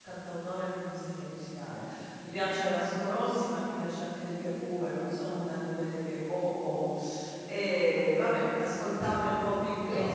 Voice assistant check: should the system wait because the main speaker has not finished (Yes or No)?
Yes